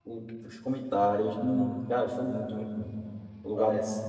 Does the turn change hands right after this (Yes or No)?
Yes